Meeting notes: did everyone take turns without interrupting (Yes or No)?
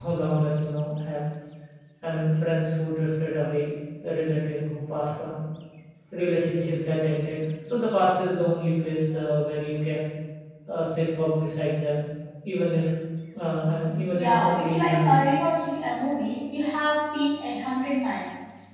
No